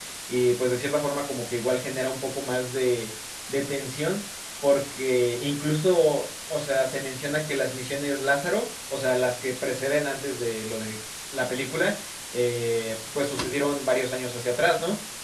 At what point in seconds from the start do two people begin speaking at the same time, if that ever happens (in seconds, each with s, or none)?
none